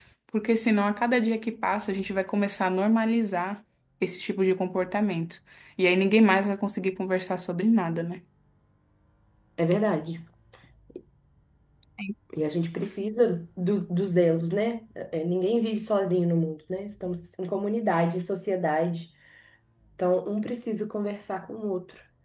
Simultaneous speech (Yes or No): No